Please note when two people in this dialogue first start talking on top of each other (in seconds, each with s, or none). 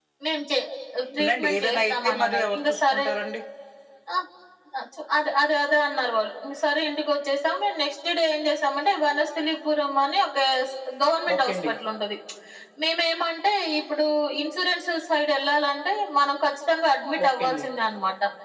1.2 s